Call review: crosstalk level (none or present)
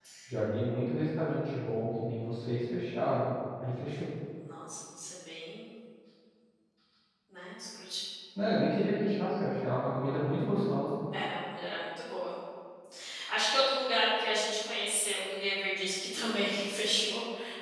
none